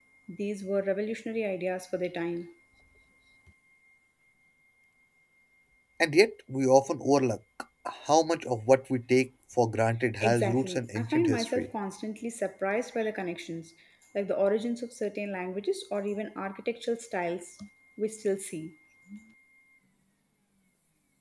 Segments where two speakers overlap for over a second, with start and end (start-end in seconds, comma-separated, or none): 10.2-11.7